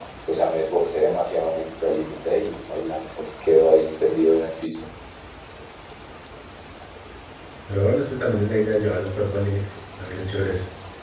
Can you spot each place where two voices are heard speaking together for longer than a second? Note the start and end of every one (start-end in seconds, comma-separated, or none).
none